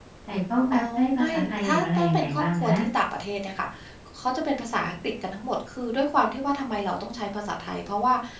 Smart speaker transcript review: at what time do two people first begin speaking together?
0.7 s

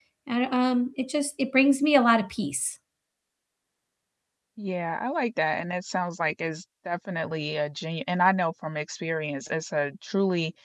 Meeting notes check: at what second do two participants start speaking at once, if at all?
none

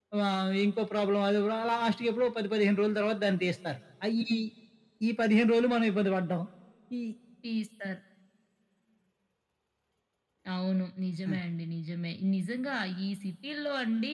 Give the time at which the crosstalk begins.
none

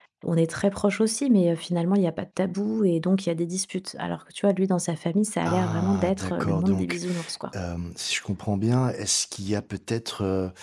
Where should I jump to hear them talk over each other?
5.4 s

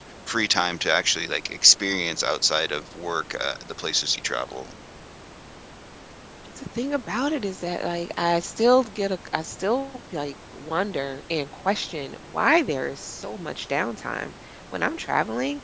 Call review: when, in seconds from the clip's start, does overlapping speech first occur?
none

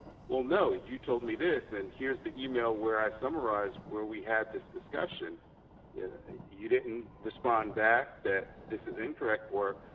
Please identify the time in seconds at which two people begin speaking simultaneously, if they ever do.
none

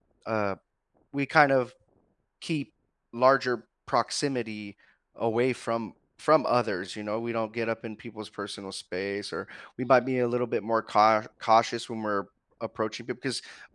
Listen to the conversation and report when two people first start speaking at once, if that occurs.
none

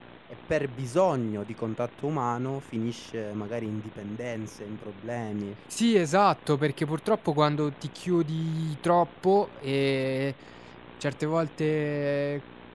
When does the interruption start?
none

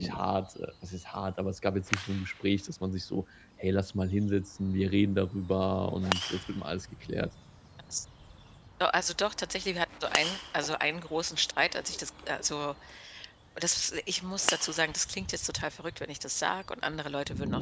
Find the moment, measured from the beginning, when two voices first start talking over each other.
none

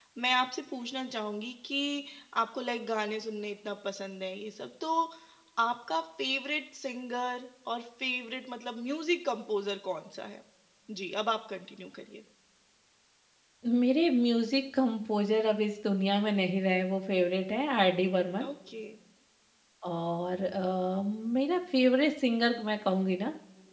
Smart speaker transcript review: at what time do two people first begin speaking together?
none

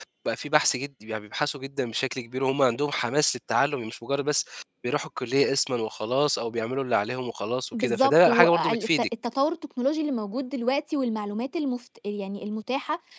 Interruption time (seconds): 7.7 s

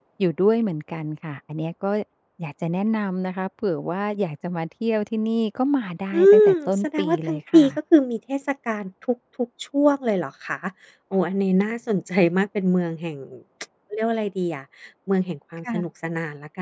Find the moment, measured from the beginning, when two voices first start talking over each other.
6.1 s

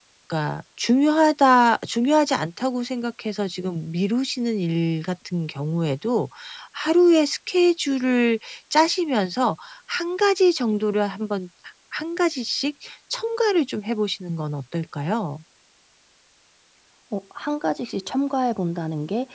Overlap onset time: none

